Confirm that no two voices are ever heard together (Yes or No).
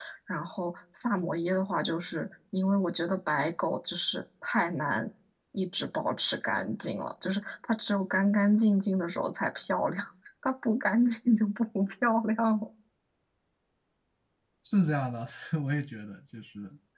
Yes